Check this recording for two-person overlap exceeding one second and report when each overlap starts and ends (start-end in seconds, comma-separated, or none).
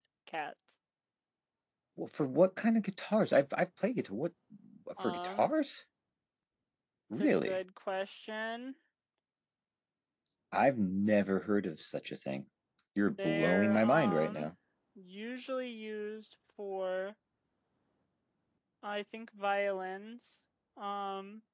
13.2-14.5